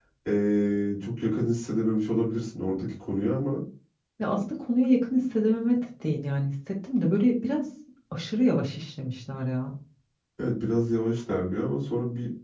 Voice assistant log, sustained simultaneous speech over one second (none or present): none